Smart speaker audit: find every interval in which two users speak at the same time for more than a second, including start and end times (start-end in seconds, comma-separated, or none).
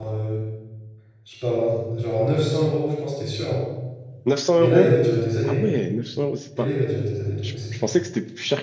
none